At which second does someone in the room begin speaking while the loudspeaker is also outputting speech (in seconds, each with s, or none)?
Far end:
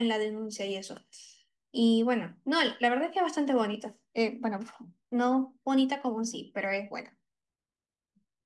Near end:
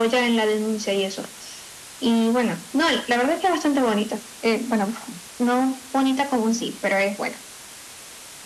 none